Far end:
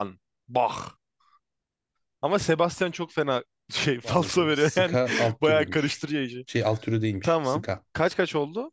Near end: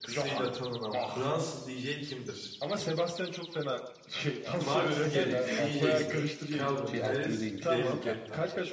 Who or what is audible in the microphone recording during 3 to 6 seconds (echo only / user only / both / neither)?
both